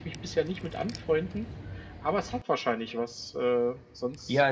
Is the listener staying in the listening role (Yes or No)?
No